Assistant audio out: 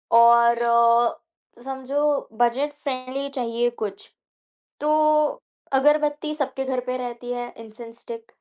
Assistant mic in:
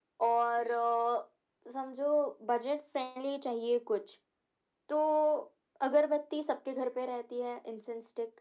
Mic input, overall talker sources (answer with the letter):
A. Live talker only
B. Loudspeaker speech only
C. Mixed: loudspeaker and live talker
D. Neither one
B